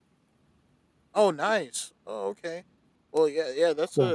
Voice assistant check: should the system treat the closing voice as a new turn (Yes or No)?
No